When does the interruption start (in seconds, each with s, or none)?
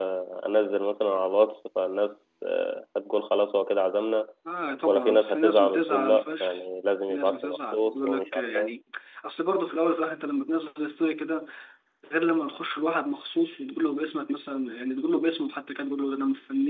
4.9 s